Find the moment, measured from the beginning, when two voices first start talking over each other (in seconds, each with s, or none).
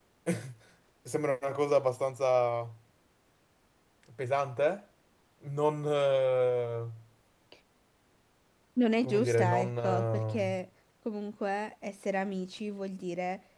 9.0 s